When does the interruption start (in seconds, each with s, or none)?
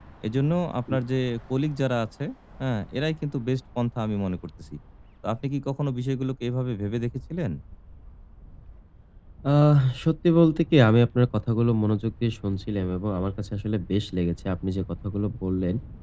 none